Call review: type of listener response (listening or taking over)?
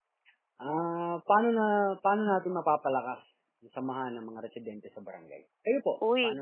taking over